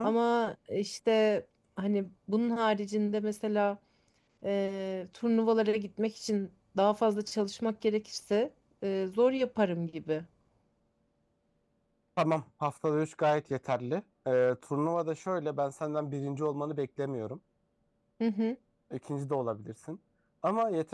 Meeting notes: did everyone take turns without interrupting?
Yes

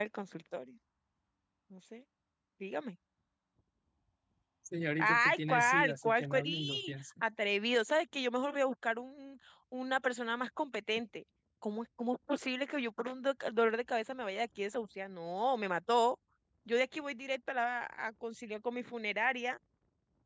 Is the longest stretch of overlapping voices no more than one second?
No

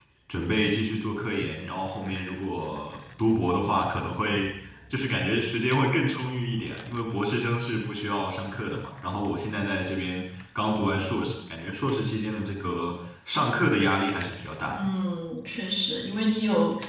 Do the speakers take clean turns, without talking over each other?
Yes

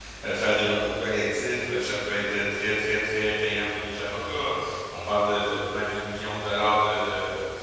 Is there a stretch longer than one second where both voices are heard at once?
No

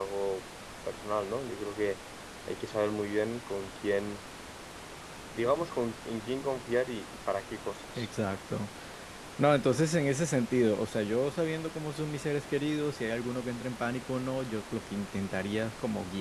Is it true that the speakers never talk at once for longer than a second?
Yes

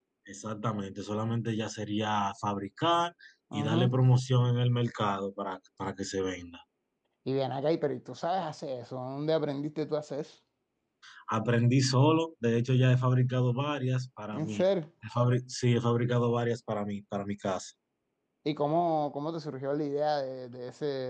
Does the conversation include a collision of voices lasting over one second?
No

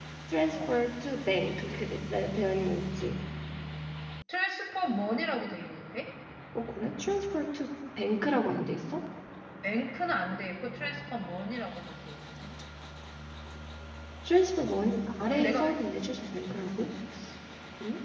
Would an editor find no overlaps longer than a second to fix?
Yes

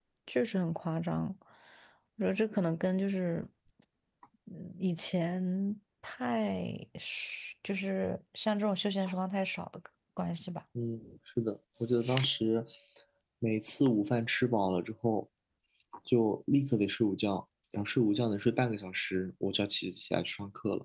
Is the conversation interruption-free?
Yes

